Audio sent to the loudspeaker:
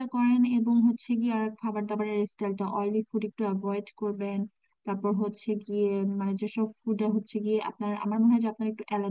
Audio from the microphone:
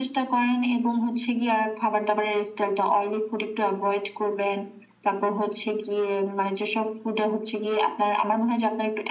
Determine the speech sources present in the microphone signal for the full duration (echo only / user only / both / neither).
echo only